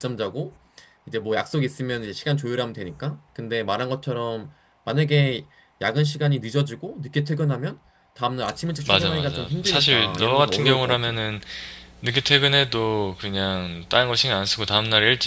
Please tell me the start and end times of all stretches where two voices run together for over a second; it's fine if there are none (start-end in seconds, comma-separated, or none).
8.8-11.0